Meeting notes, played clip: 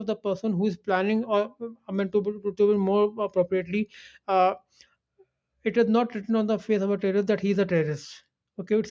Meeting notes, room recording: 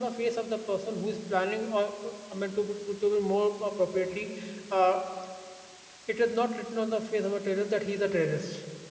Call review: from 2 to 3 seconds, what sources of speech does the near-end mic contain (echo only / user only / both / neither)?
echo only